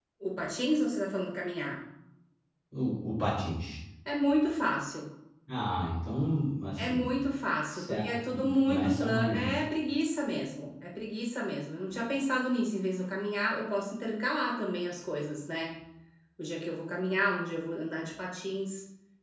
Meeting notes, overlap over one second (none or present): present